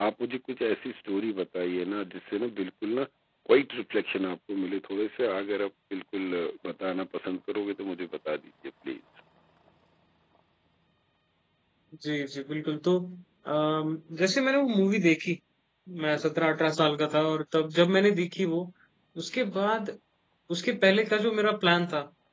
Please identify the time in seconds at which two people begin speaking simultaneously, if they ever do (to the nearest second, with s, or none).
none